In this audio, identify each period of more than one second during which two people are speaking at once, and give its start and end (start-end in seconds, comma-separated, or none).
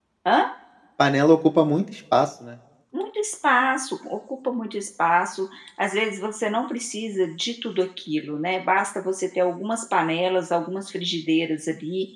none